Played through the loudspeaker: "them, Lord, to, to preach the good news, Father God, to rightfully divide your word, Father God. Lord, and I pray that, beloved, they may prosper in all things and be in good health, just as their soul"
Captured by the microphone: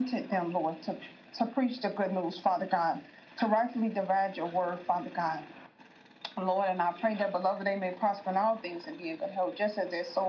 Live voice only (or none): none